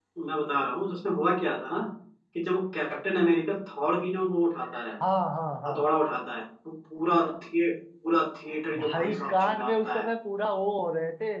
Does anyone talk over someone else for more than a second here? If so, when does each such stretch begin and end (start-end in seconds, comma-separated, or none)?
8.8-10.0